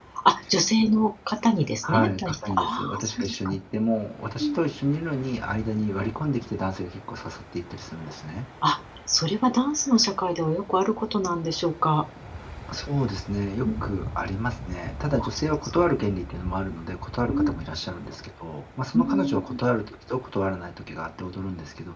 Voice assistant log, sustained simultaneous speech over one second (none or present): present